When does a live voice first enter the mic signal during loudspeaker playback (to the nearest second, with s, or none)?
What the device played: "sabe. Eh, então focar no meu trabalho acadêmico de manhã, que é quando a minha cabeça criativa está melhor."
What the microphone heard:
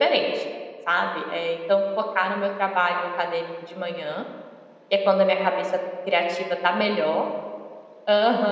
none